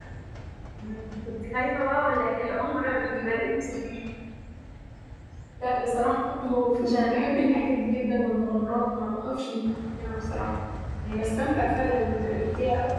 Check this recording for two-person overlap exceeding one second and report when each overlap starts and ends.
2.4-3.7

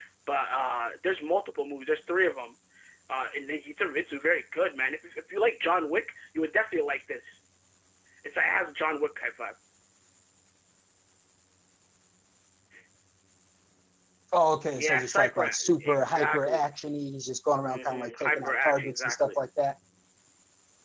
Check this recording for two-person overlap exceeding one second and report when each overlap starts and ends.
14.8-16.6, 17.7-19.3

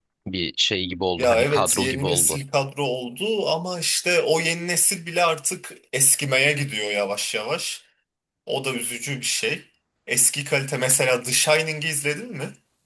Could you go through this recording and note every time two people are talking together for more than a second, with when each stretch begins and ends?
1.2-2.4

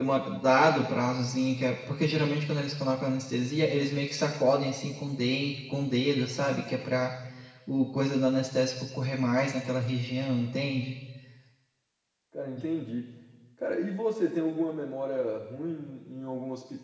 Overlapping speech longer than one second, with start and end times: none

